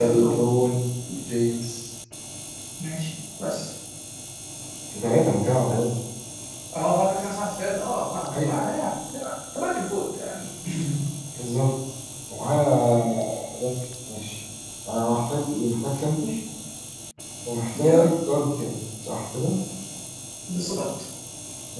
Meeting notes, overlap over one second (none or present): none